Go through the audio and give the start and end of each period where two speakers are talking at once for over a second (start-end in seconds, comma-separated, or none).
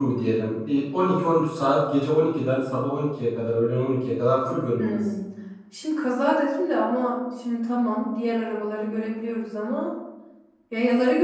none